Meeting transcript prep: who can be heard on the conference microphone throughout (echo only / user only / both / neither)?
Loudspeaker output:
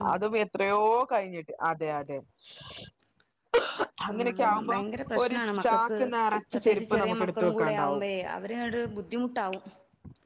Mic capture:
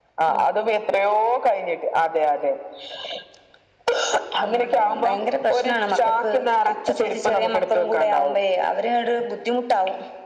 echo only